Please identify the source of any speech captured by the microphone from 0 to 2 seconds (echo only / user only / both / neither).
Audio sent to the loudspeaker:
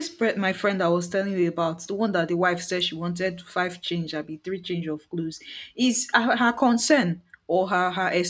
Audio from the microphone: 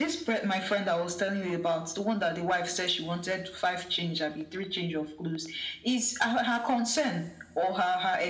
echo only